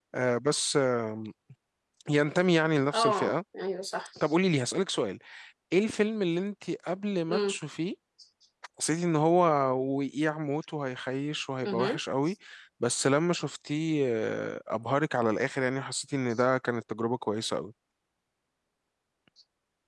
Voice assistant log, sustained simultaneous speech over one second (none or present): none